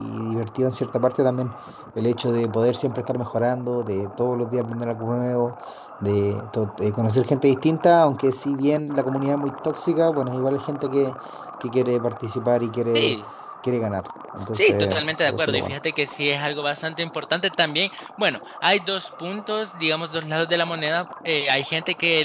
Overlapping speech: Yes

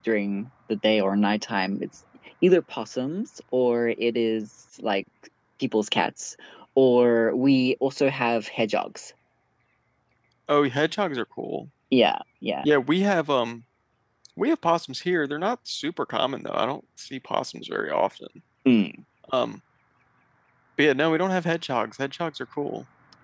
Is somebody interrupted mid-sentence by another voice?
No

